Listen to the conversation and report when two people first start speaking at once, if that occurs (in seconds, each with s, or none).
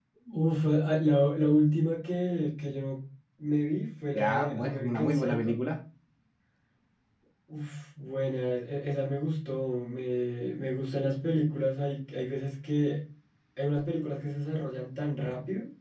4.1 s